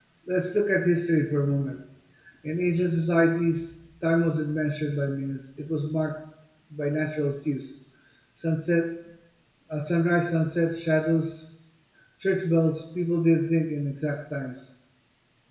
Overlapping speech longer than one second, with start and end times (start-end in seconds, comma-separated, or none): none